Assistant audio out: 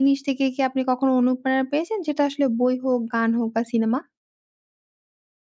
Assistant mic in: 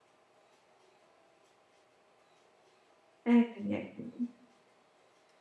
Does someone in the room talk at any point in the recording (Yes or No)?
Yes